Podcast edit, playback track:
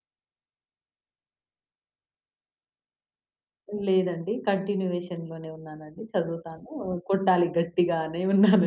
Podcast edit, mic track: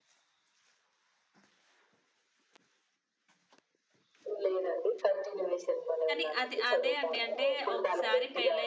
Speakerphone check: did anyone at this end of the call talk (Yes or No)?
Yes